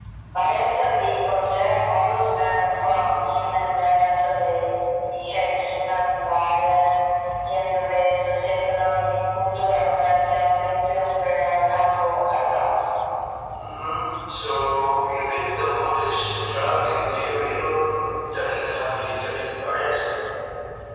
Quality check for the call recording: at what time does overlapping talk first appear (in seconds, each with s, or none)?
none